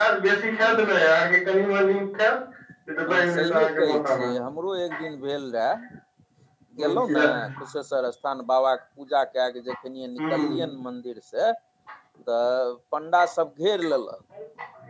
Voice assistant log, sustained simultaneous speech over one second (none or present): present